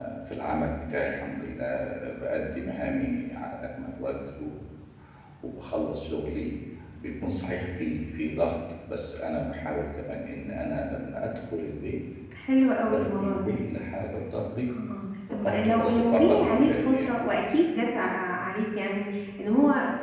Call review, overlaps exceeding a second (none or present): present